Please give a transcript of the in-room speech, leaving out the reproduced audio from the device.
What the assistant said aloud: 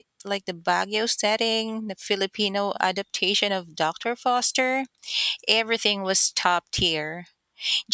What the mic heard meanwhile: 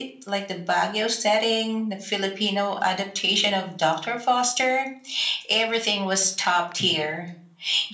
none

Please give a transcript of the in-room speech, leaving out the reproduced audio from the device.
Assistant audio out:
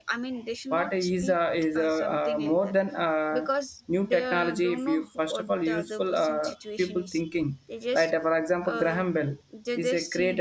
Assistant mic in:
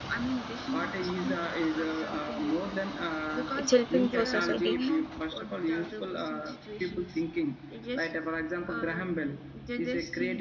it's helping for society

